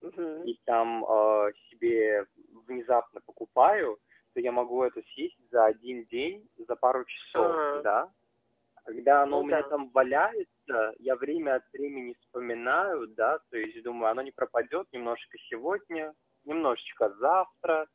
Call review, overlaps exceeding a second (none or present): none